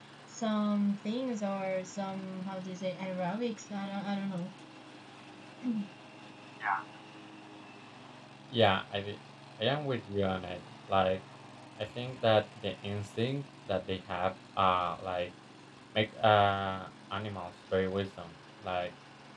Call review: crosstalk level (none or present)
none